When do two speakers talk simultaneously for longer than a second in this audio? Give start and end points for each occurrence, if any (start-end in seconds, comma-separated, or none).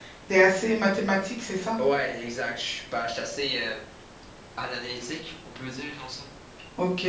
none